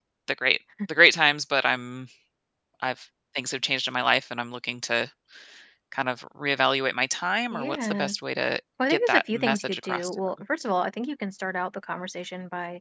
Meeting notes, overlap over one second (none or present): present